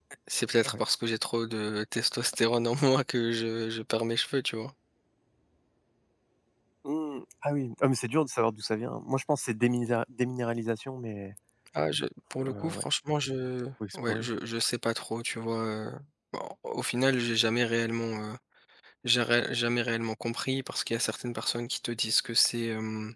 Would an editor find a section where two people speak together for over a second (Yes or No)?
No